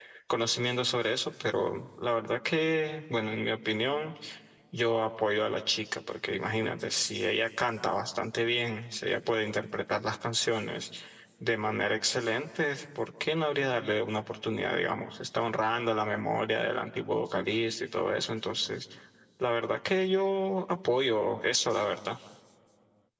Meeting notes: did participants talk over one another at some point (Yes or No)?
No